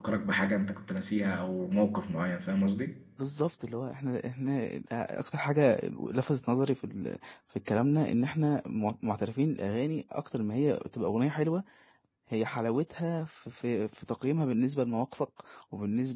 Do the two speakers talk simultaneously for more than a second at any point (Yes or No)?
No